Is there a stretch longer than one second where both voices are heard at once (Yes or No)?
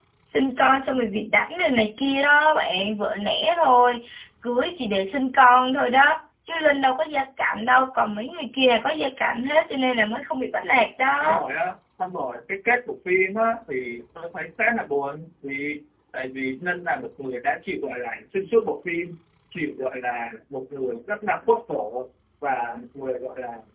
No